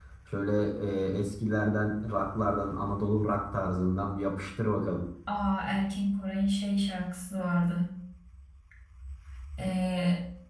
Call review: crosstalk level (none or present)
none